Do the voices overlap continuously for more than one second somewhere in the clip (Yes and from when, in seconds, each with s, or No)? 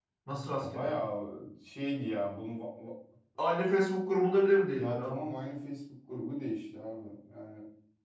No